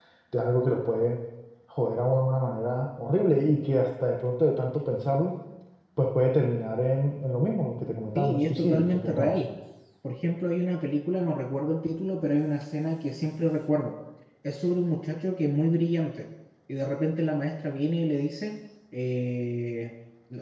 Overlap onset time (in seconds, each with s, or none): 8.2 s